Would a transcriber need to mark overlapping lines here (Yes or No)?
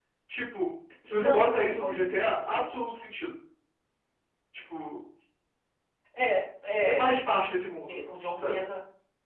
Yes